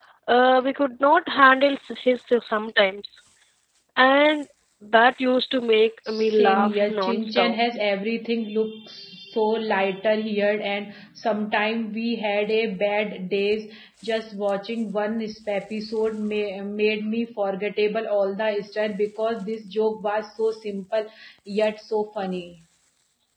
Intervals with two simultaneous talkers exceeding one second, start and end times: 6.1-7.6

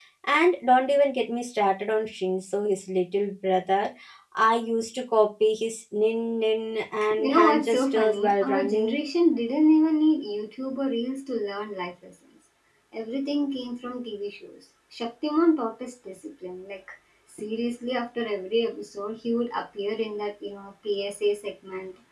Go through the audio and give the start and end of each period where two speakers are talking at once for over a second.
7.2-9.0

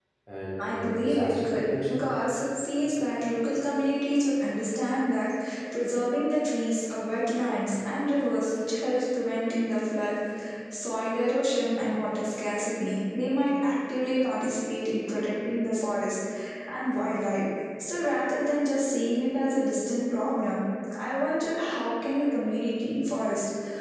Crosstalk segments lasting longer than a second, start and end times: 0.6-2.1

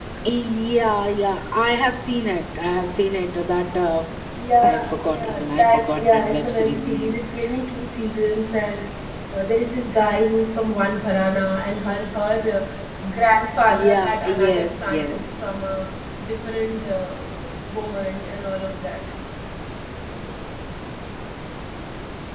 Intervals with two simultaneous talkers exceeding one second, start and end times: 4.6-7.2, 13.7-15.2

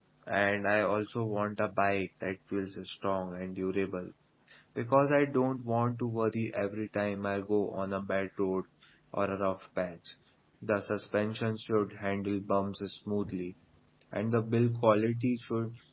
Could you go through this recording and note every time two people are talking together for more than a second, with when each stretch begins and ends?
none

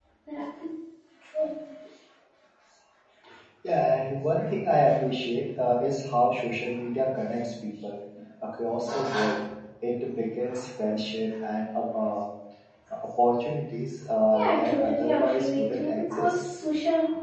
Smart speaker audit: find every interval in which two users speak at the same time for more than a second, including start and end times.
14.4-16.4

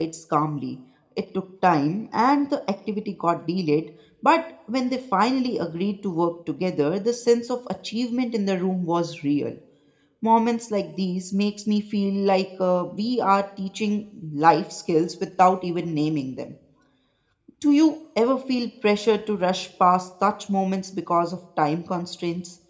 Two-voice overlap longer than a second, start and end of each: none

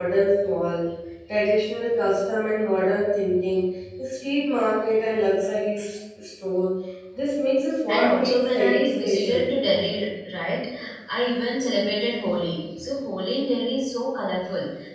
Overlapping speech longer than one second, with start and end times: 7.9-9.4

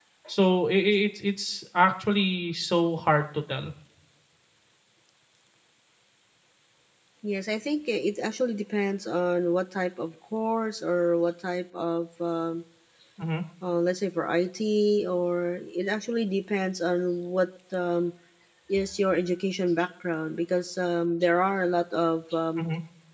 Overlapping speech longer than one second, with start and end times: none

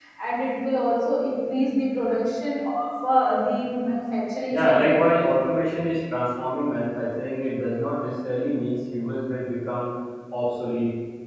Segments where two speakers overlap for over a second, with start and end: none

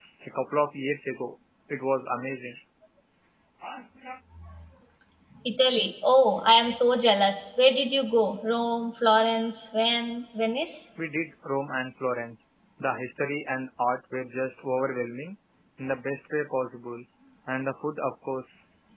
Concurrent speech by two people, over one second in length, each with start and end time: none

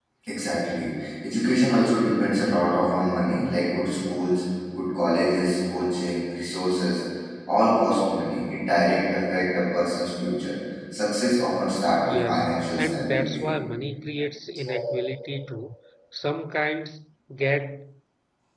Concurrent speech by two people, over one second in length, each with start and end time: 12.1-13.4

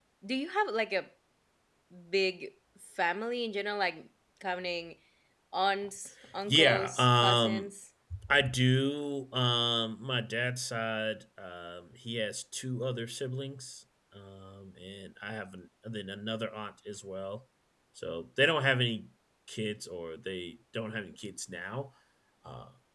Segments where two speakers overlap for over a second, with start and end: 6.5-7.7

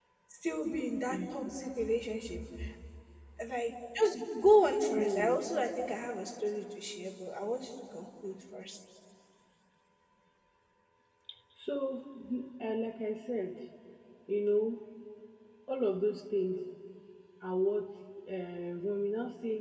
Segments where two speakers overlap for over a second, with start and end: none

